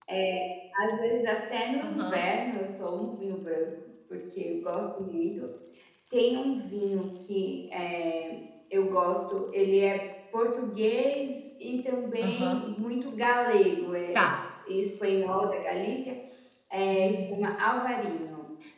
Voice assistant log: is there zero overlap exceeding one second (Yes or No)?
Yes